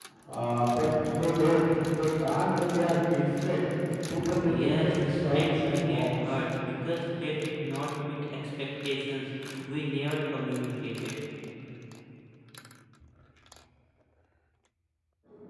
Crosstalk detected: Yes, from 4.5 s

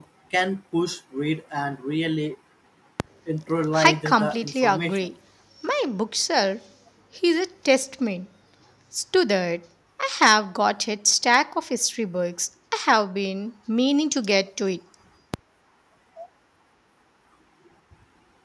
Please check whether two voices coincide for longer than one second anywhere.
Yes, from 3.8 s

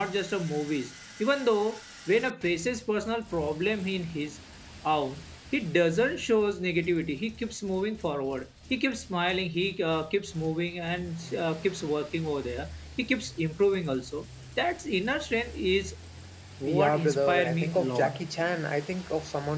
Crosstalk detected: Yes, from 16.7 s

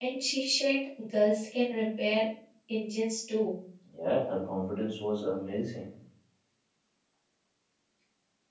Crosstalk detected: No

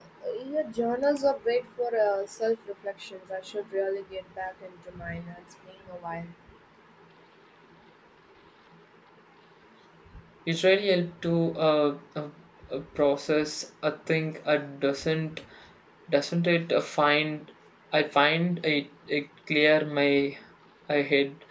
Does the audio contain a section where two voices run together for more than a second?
No

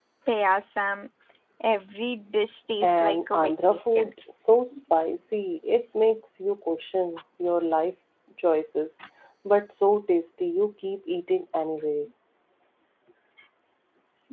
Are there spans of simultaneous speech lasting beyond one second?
Yes, from 2.8 s

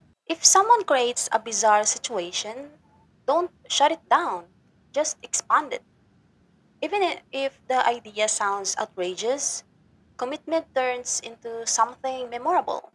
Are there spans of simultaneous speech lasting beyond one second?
No

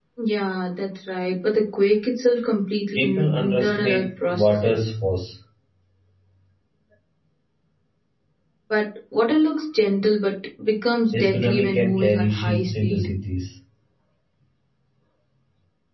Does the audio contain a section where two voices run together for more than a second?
Yes, from 3.0 s

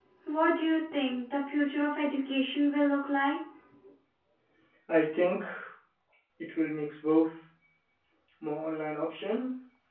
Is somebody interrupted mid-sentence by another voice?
No

